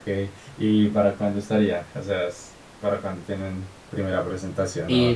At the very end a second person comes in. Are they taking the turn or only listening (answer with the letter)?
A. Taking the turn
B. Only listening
A